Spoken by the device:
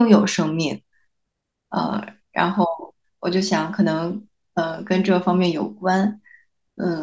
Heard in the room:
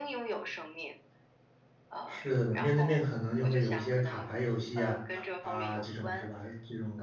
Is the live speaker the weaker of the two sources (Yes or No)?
No